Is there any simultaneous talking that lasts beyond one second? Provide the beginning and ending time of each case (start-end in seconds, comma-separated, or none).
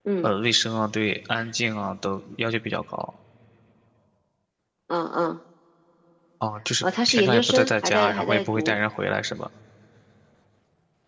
6.8-8.8